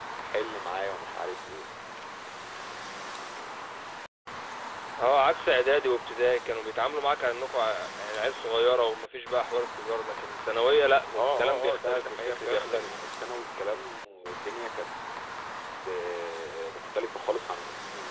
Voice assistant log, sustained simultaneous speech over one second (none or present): present